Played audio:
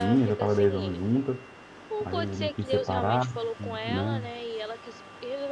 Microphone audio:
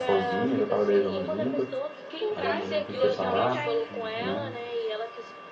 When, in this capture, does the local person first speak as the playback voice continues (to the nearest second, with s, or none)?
1 s